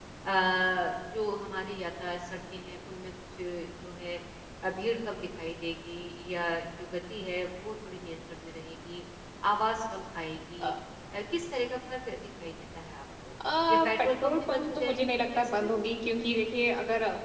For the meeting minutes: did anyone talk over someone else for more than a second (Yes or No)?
Yes